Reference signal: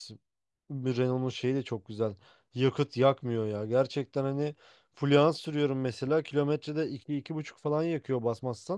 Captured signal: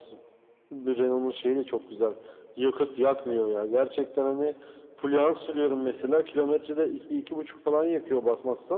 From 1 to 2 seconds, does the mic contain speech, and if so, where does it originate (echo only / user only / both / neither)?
echo only